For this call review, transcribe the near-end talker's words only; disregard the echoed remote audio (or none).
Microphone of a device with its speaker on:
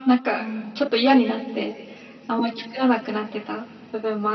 はい。